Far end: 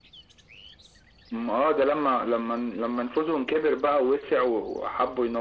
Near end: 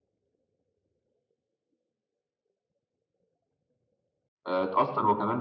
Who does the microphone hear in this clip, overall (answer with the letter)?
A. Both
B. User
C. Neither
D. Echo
B